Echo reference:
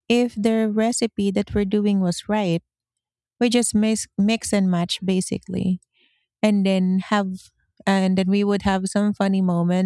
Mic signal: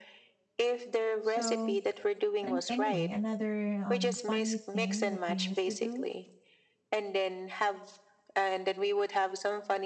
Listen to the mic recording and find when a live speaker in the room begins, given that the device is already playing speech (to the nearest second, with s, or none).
1 s